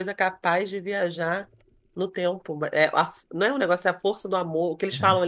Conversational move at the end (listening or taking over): listening